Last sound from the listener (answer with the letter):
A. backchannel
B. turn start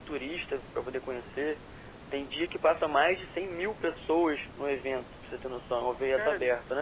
B